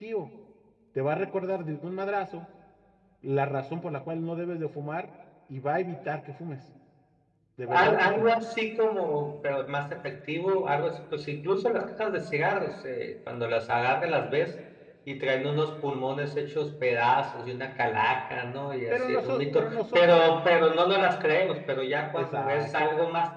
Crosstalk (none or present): present